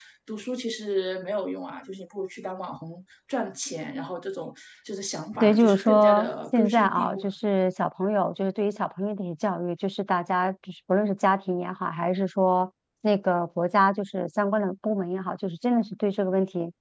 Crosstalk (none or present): present